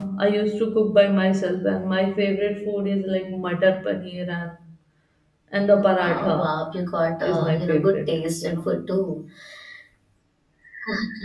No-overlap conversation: No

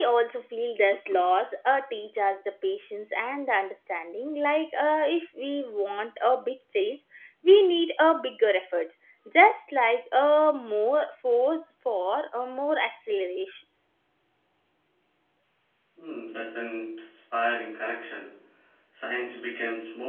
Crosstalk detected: No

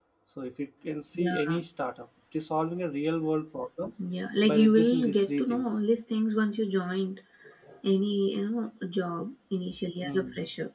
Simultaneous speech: Yes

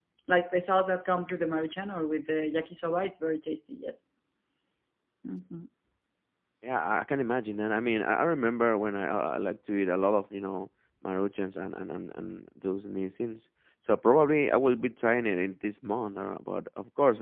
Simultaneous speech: No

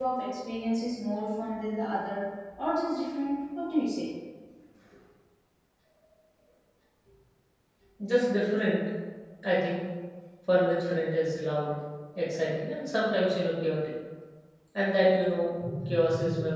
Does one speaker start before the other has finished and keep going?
No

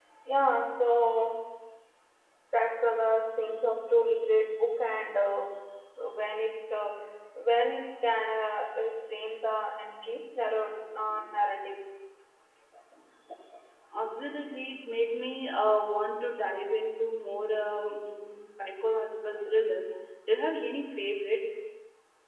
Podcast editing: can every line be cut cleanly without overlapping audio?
Yes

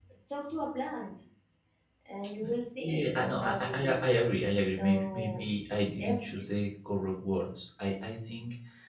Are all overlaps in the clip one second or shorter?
No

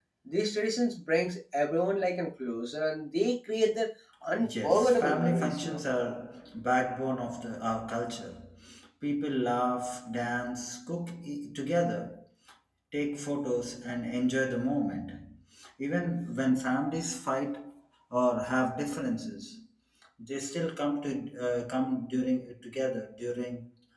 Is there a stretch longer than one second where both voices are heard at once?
Yes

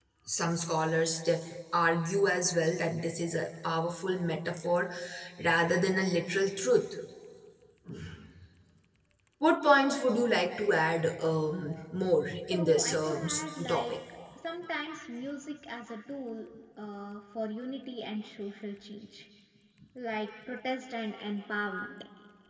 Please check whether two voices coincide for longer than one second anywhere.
Yes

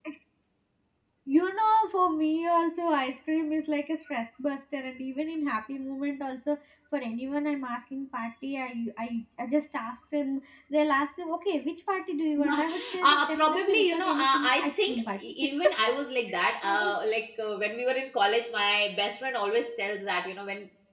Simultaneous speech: Yes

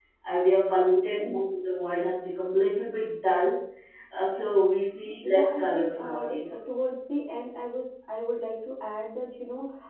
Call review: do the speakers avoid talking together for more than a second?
No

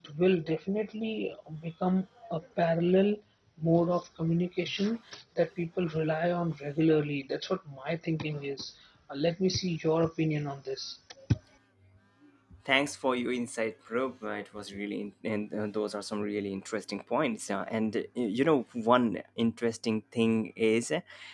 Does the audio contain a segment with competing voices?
No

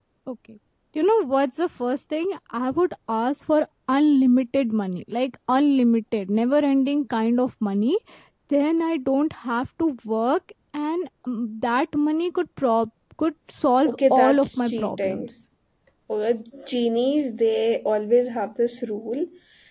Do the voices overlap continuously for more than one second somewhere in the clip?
Yes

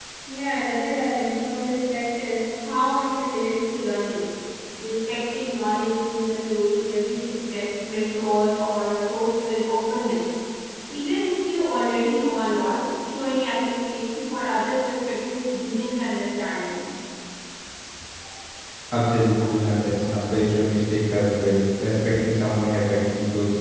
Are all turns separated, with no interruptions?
Yes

